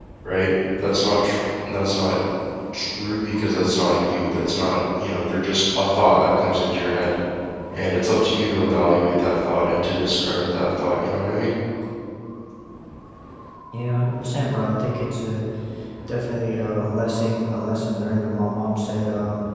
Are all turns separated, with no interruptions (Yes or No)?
Yes